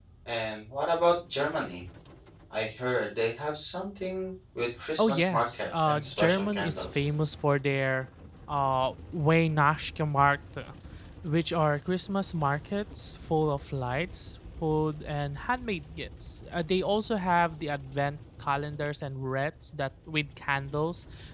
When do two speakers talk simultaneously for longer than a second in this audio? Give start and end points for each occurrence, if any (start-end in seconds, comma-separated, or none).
5.0-7.1